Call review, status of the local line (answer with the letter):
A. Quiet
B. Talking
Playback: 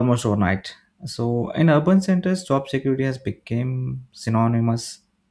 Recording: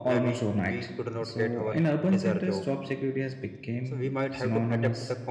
B